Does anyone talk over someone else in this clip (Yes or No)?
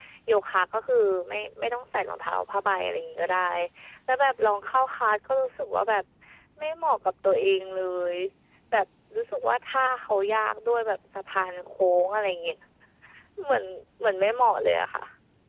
No